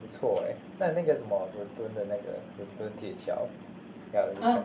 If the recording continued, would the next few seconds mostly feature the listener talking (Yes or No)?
Yes